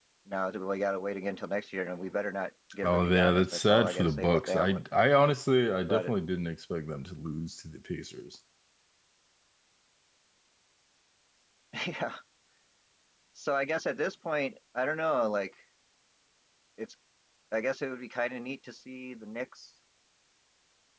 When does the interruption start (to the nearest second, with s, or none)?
3 s